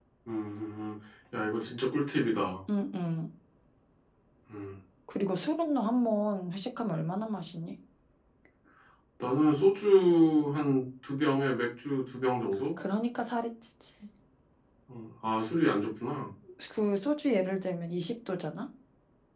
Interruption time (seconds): none

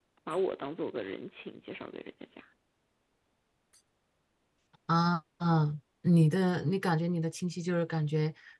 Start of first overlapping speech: none

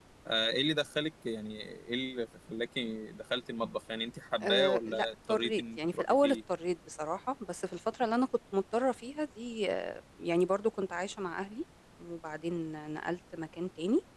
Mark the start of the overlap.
4.4 s

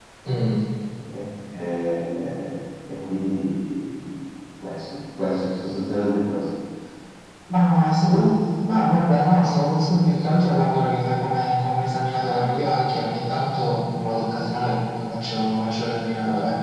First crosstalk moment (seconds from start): none

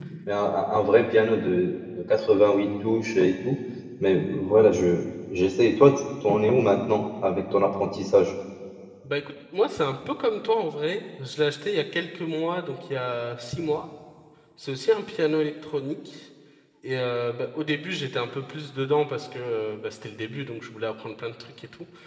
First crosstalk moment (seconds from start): none

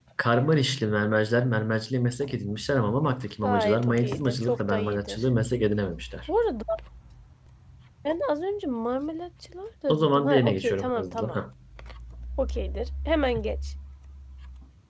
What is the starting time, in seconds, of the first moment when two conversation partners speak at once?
3.4 s

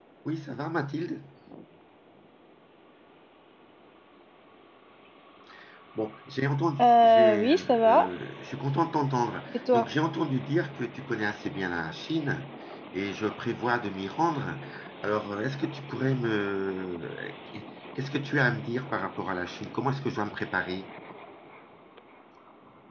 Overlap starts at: 6.8 s

